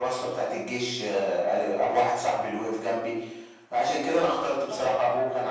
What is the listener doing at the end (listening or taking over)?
listening